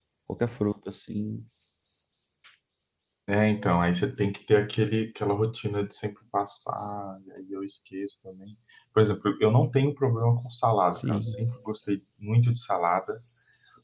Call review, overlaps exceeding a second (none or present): none